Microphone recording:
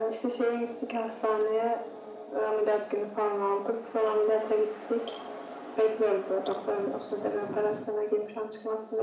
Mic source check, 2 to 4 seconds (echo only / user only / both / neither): echo only